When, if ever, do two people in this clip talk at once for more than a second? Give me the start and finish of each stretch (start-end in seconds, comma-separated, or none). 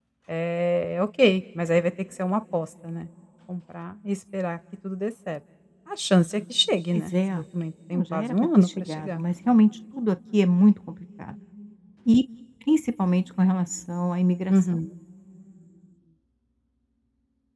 7.9-9.2